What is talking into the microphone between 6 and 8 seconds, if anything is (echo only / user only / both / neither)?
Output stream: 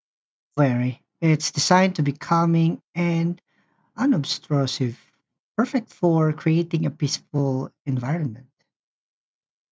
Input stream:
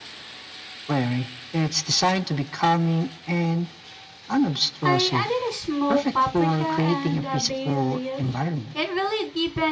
both